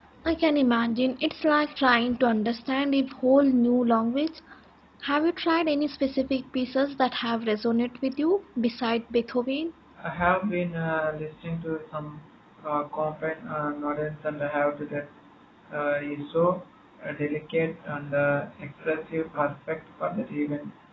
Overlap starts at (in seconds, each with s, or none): none